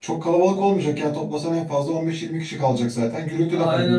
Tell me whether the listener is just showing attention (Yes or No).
No